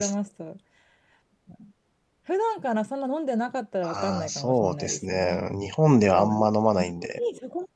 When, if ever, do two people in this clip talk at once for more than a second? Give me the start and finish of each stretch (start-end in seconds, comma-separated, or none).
3.9-5.4